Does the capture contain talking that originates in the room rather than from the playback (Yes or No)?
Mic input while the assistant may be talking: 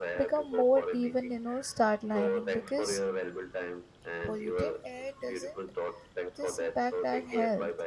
Yes